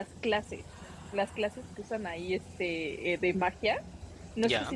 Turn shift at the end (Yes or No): No